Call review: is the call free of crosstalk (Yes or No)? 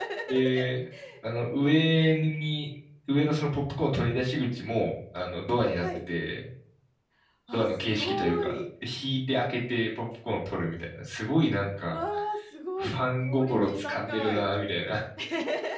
No